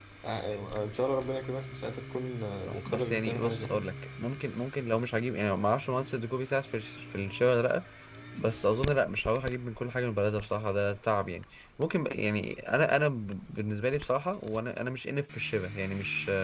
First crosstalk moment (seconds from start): 3 s

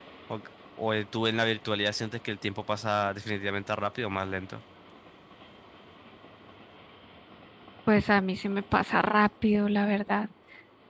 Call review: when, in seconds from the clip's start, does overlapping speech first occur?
none

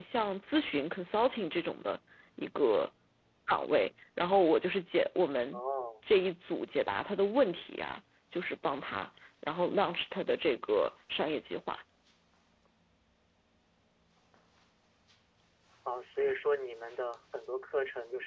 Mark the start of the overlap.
none

